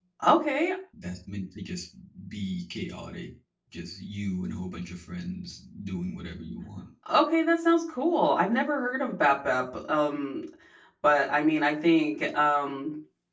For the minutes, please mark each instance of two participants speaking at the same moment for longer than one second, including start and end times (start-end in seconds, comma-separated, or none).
none